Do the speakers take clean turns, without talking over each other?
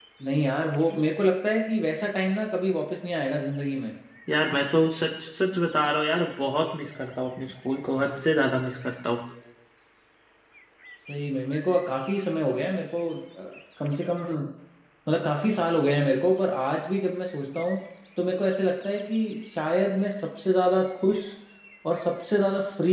Yes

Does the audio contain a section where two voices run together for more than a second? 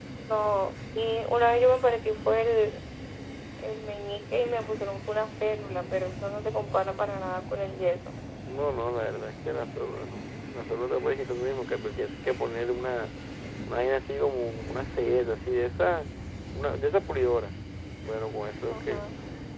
No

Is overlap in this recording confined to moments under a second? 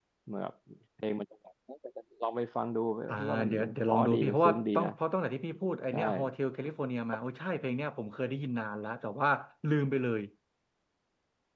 No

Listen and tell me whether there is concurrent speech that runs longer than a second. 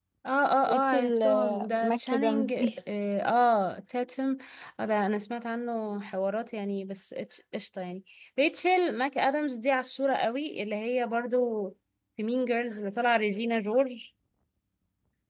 Yes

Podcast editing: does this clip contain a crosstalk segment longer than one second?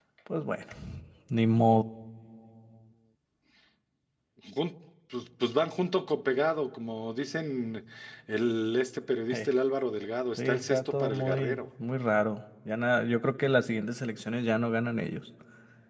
Yes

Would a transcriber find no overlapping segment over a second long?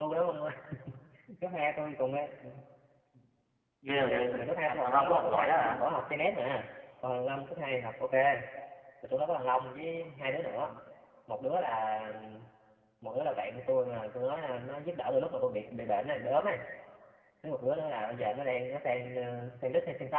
No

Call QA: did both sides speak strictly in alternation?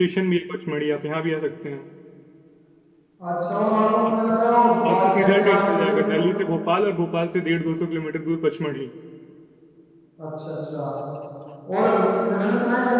No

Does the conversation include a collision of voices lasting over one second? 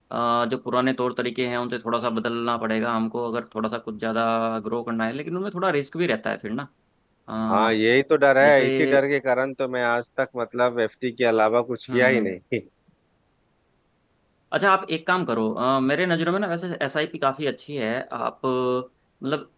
No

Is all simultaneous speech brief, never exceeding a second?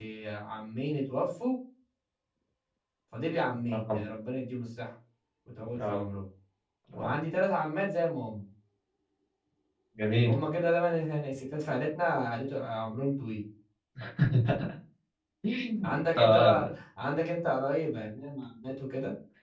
Yes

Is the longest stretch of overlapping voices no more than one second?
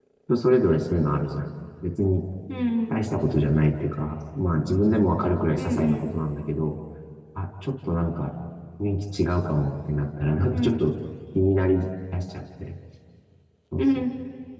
Yes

